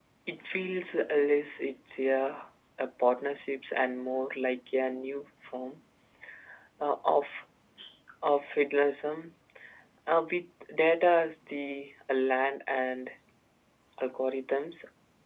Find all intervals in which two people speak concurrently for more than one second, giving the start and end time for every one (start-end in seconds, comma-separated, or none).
none